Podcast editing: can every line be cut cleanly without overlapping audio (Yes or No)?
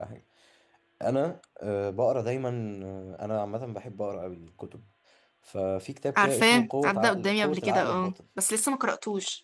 No